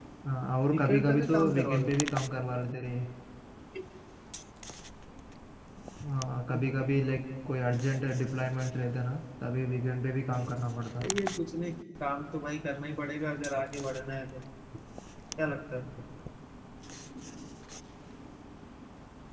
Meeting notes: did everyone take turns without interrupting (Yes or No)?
No